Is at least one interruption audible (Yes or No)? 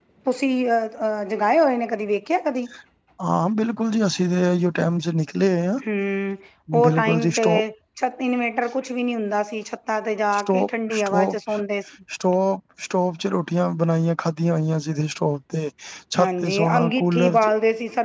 Yes